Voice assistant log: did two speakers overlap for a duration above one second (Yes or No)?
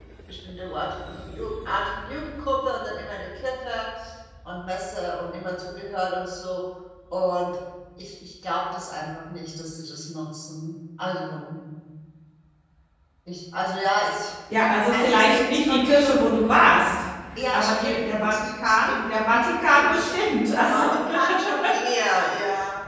Yes